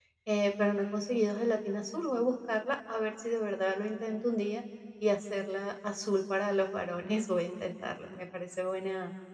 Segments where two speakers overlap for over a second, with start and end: none

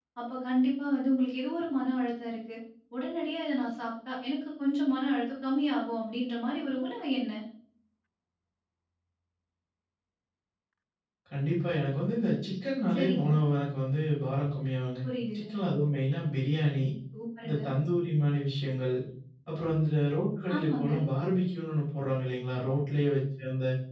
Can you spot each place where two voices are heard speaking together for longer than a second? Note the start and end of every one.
none

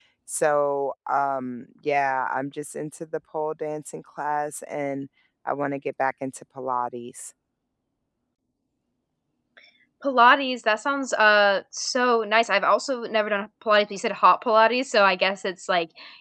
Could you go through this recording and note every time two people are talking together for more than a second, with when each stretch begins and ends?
none

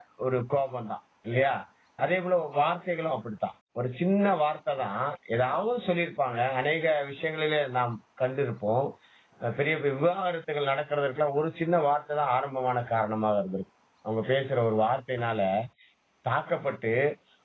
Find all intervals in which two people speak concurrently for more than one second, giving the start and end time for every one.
none

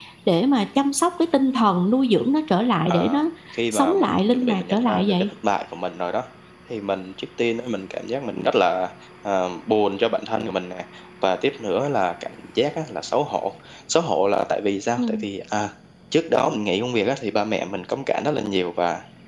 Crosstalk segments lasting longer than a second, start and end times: 3.7-5.1

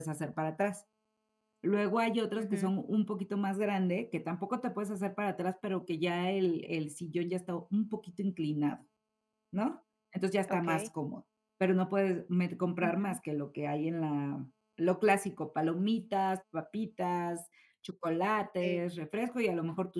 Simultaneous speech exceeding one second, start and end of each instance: none

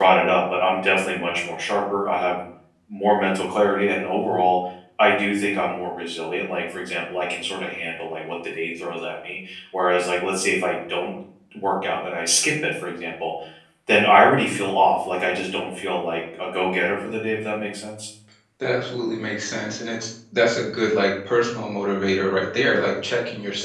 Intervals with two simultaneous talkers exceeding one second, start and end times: none

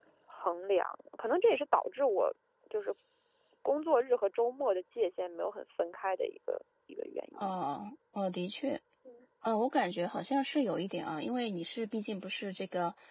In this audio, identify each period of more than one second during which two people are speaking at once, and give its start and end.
none

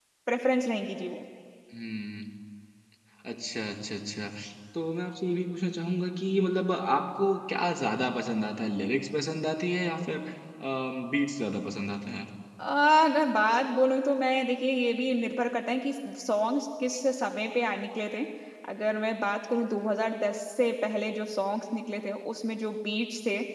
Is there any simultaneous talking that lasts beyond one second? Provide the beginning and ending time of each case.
none

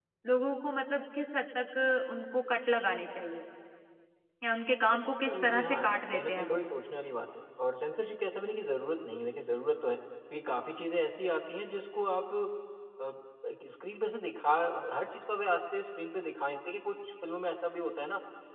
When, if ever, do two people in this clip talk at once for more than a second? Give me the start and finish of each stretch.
5.2-6.6

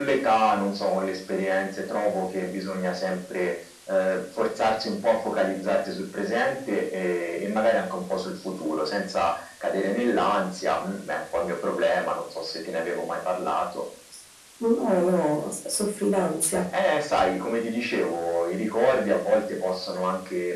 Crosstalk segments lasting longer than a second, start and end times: none

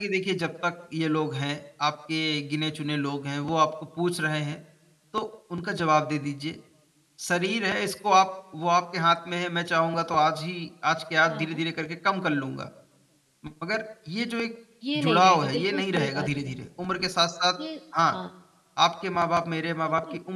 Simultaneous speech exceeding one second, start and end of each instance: 15.0-16.5

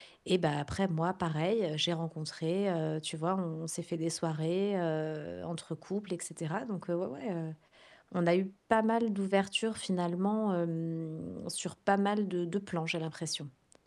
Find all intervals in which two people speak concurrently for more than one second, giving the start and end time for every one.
none

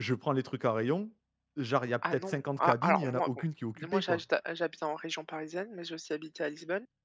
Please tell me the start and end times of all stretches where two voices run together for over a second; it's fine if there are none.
2.0-3.4

